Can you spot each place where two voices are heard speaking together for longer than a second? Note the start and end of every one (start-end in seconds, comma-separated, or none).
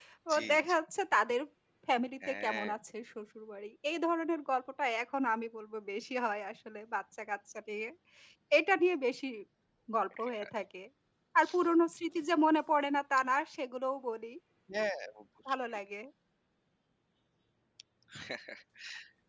none